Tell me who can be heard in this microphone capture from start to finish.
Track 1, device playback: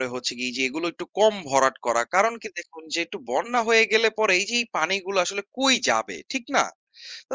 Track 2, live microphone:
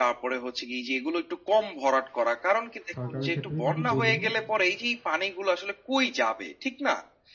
both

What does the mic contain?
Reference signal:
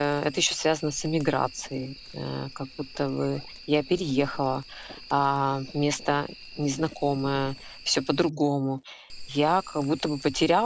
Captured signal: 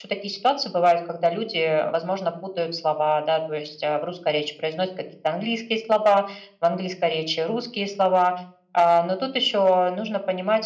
user only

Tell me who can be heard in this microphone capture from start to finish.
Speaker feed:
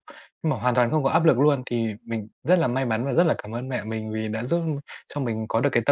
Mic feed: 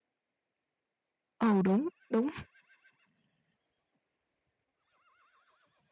user only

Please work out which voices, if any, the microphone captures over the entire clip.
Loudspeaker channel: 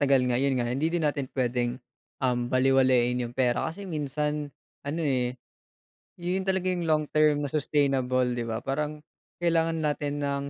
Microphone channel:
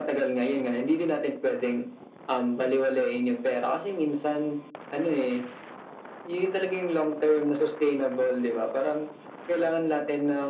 echo only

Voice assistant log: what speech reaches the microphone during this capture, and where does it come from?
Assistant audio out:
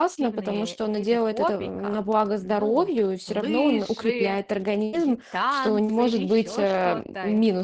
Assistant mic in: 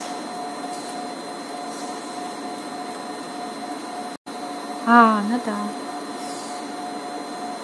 user only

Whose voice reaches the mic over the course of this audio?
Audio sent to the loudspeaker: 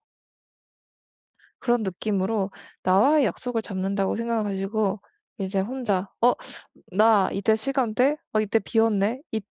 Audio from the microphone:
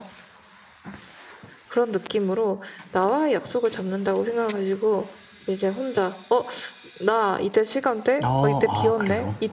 both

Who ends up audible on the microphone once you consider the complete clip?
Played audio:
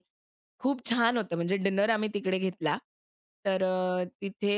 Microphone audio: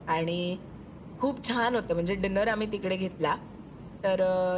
echo only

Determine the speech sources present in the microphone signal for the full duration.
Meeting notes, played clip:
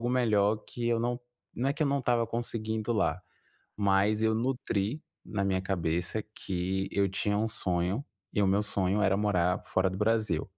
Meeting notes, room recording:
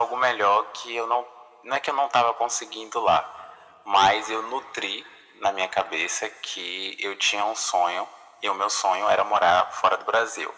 echo only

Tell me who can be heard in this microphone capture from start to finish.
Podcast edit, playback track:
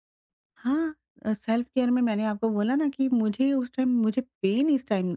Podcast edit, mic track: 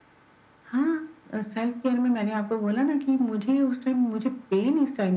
echo only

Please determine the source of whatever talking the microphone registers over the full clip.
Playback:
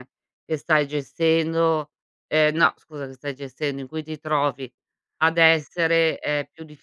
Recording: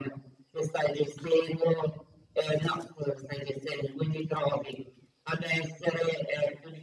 echo only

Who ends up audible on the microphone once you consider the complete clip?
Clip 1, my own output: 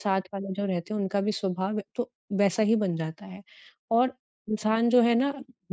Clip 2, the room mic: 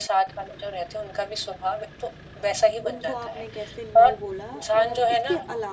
both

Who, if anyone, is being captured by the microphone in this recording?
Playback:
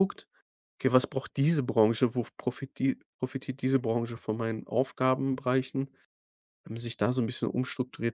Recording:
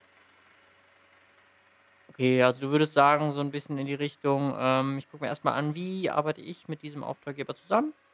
user only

